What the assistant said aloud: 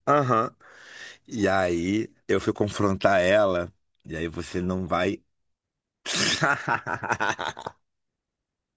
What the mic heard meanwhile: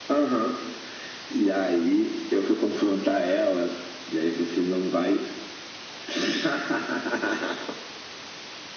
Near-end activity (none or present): none